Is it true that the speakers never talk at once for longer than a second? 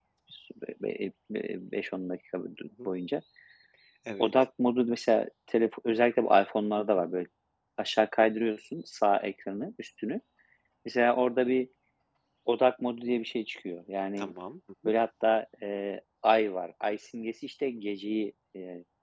Yes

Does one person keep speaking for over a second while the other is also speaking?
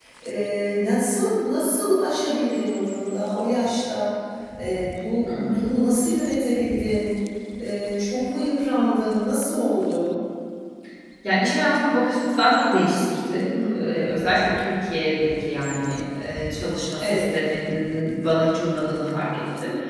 No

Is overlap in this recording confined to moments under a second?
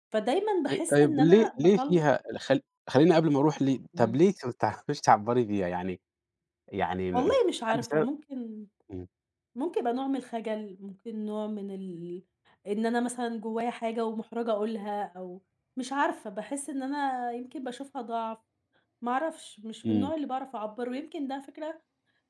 No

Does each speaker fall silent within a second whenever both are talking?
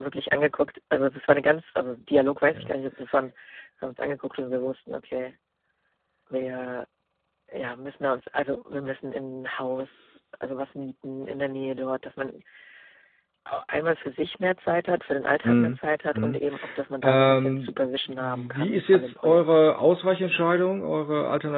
No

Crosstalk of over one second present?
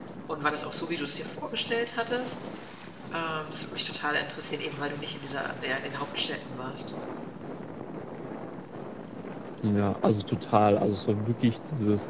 No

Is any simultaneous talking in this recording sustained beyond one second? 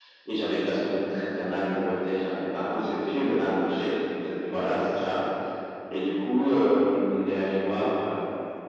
Yes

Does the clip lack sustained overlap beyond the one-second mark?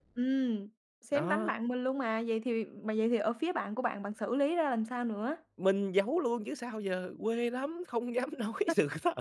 Yes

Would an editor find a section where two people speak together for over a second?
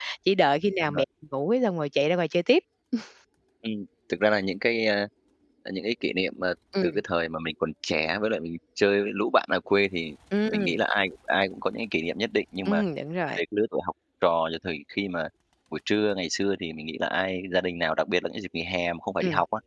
No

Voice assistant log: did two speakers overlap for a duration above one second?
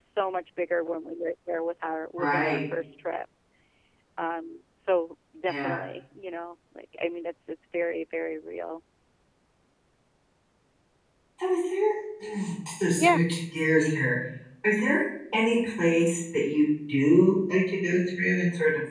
No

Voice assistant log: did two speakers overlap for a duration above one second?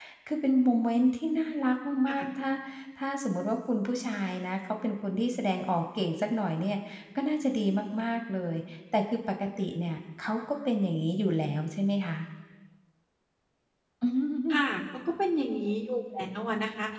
No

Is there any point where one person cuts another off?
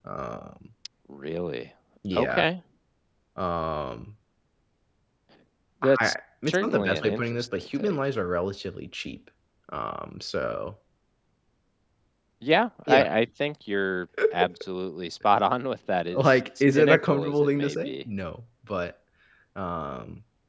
Yes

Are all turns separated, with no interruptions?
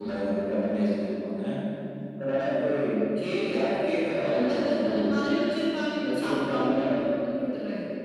No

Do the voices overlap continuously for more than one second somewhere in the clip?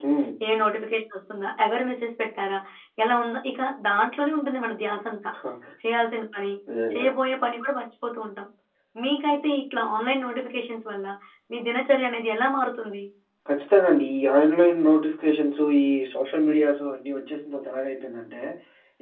No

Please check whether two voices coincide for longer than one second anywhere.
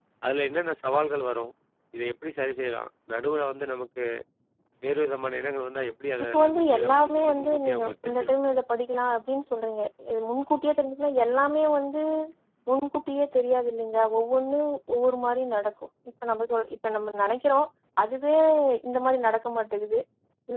Yes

